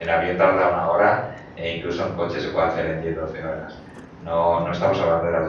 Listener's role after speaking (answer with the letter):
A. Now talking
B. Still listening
B